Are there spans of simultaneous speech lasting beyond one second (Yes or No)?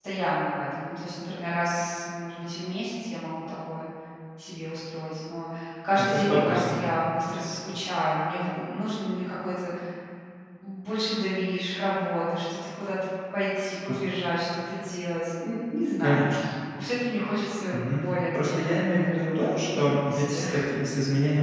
Yes